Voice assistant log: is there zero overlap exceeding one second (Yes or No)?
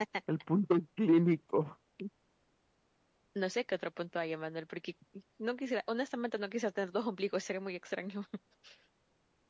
Yes